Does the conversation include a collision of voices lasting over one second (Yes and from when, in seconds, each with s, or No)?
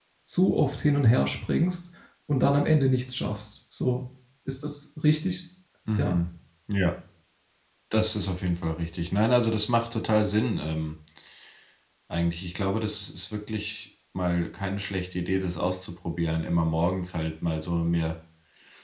No